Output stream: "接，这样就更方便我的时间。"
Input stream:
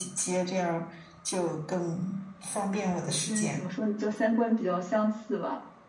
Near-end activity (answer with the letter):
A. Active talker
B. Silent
A